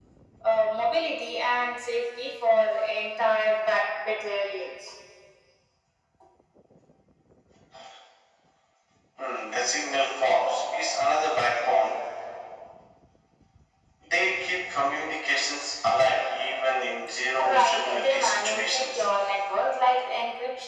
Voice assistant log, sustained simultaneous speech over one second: present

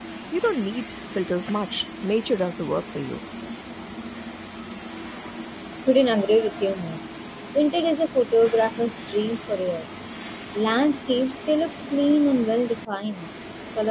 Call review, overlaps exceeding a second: none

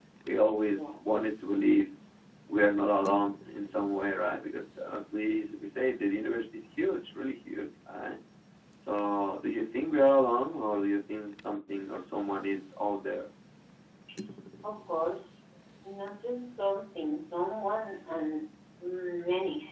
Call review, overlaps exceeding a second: none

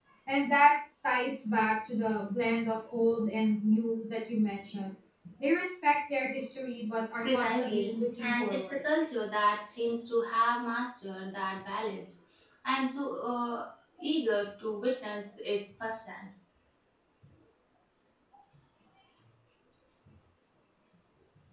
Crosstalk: present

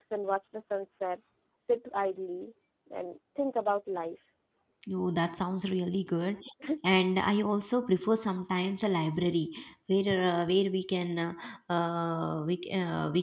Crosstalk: none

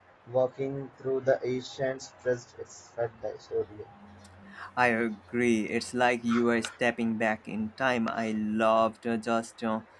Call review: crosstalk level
none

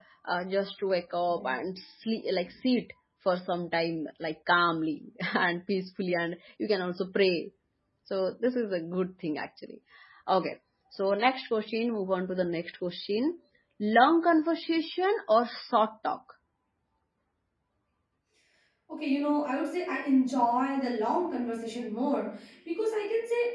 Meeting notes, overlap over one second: none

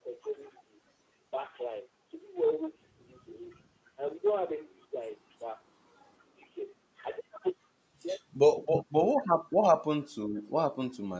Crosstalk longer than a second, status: none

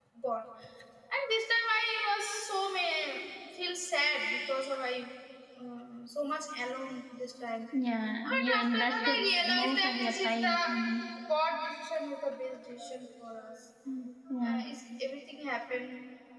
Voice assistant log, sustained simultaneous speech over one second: present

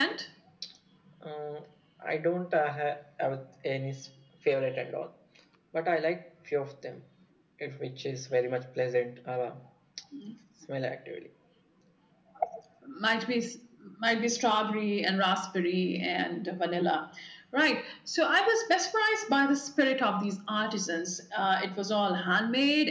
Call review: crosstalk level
none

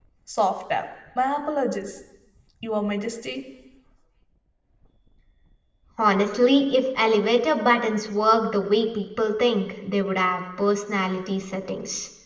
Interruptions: none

